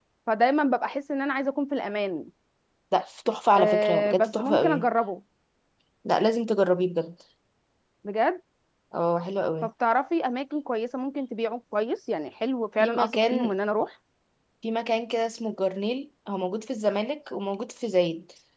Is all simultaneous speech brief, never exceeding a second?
No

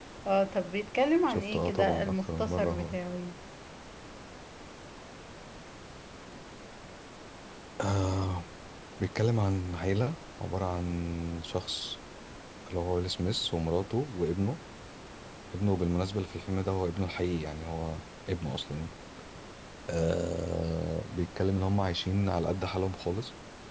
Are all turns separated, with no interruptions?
No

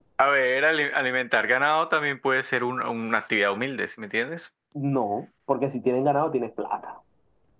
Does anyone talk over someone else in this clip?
No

